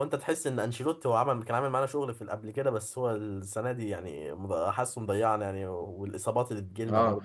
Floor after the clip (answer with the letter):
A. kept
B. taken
B